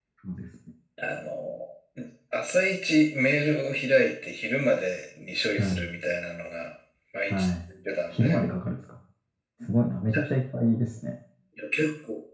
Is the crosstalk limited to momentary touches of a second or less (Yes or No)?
Yes